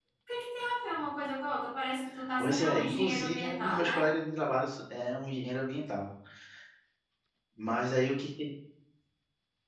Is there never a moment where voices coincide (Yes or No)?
No